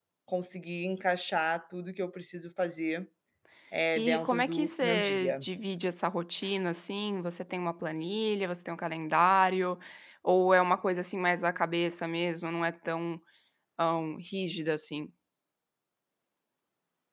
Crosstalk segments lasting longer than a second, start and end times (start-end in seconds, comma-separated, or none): 4.0-5.5